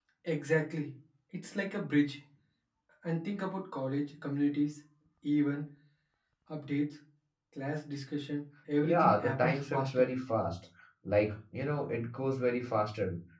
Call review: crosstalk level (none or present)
present